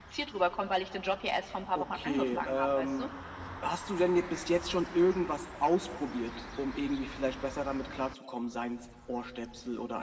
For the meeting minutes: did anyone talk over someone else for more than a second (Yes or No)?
Yes